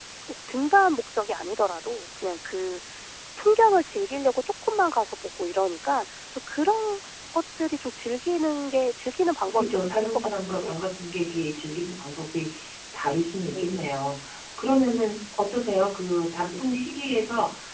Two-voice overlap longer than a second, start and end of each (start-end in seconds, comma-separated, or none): 9.5-10.8